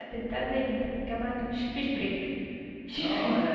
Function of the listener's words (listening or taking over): taking over